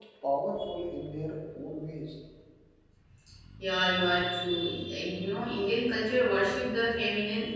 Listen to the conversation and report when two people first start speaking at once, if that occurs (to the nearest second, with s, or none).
none